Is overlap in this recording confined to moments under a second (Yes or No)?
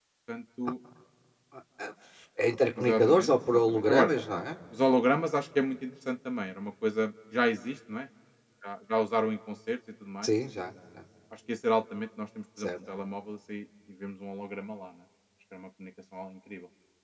No